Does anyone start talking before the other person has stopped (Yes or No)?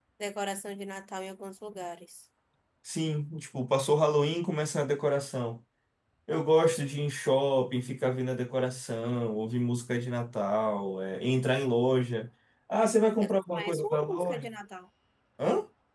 Yes